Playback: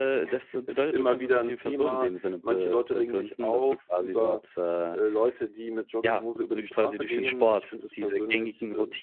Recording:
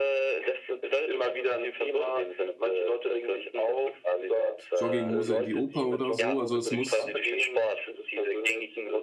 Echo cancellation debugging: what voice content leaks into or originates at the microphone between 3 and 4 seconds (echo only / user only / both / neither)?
echo only